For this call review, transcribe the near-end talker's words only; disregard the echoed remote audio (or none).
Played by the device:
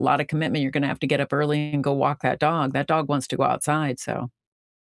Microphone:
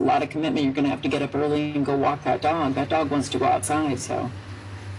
none